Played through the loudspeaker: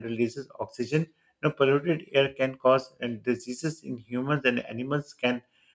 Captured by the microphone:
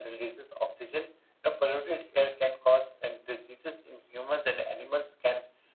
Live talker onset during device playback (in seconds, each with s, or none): none